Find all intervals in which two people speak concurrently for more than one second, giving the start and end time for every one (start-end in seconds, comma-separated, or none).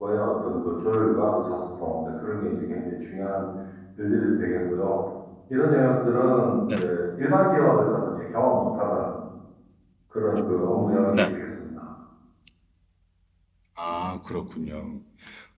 none